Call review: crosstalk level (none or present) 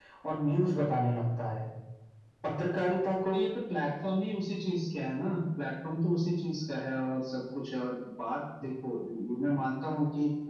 none